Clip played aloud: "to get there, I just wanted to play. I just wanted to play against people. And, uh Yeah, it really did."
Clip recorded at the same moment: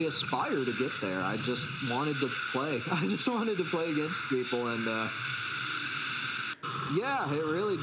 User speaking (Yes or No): No